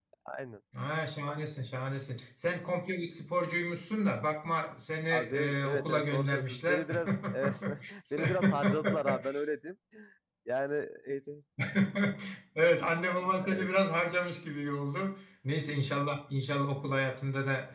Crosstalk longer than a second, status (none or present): present